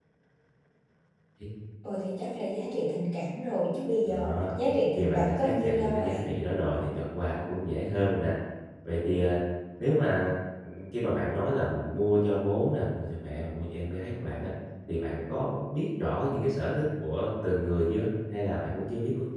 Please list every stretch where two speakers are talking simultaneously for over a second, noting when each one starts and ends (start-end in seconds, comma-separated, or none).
5.0-6.3